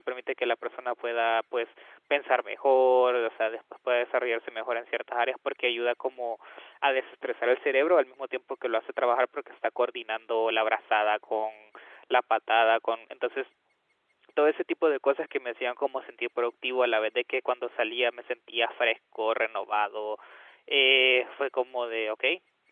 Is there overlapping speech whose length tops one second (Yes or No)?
No